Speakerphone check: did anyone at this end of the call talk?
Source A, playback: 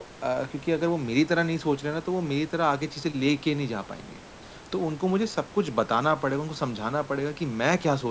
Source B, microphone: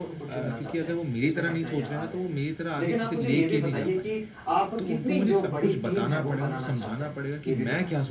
Yes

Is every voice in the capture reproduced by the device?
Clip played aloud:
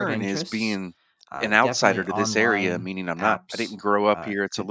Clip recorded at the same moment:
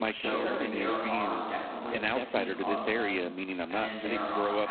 No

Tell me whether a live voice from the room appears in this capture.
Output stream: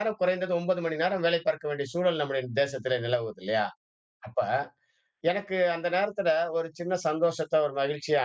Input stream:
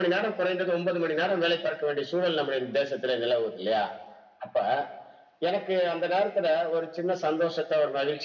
No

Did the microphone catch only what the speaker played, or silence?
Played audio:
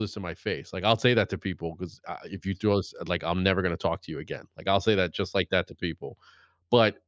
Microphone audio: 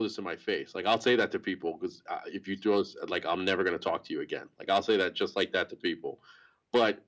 Yes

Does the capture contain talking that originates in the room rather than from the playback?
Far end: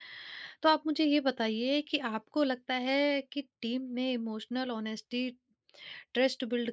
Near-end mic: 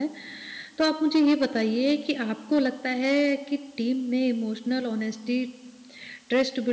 No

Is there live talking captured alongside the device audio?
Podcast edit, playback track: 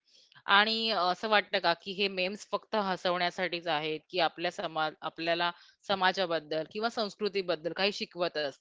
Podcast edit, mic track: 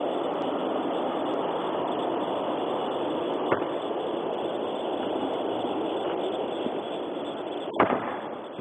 No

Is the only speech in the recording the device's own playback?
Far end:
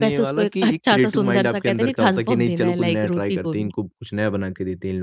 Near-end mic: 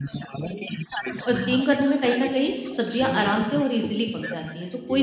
No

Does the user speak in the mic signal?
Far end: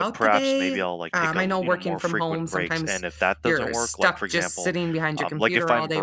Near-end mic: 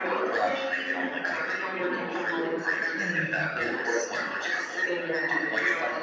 Yes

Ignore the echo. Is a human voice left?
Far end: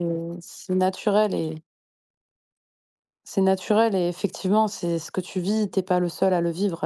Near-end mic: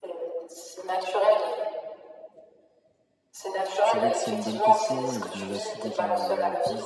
Yes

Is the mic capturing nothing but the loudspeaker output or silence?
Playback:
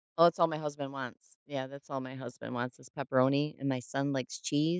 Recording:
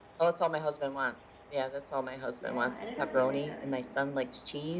No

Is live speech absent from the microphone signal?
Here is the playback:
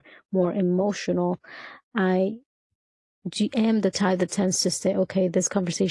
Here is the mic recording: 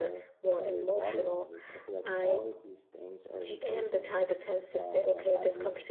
No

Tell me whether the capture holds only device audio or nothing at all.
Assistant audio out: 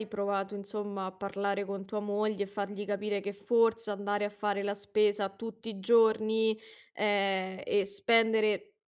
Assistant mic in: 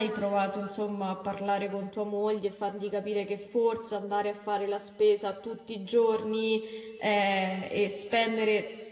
Yes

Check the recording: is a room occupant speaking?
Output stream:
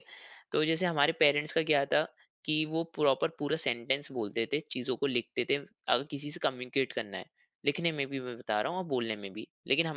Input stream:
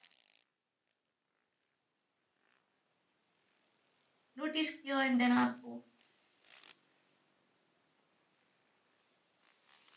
Yes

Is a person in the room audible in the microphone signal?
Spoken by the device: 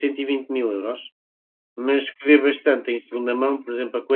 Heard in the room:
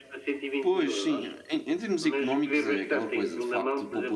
Yes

